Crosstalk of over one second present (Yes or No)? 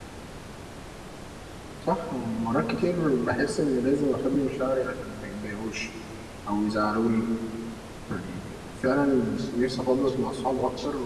No